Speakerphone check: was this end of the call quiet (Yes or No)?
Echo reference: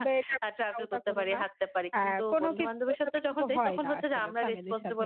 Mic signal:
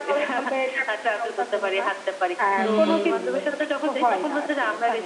No